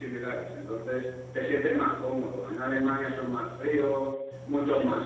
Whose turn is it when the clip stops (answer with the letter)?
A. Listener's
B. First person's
B